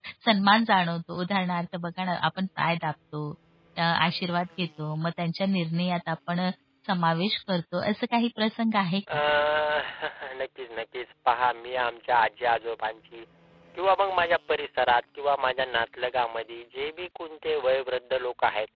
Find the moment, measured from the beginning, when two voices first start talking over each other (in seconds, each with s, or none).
none